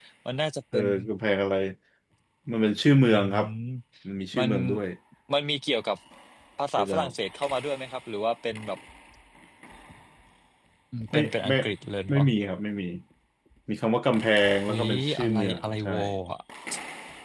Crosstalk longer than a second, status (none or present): present